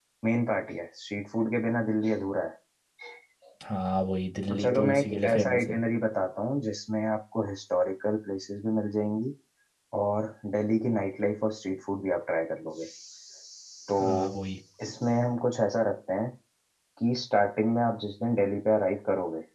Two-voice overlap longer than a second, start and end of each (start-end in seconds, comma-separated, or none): 4.5-5.8